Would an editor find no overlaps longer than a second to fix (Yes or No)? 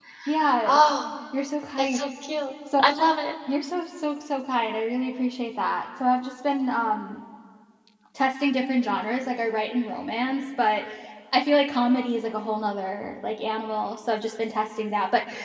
Yes